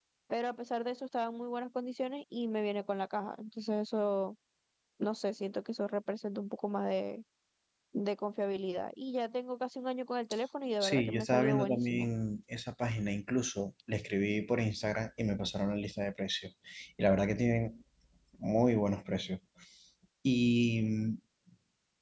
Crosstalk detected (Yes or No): Yes